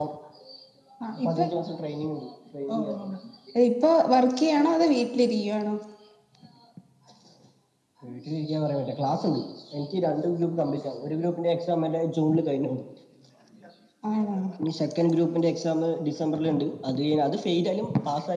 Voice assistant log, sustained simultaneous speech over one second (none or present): none